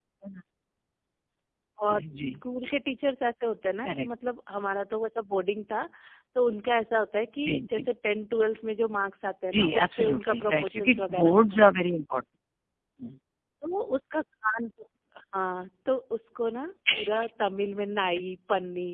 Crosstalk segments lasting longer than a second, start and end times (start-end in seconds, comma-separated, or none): 9.5-11.6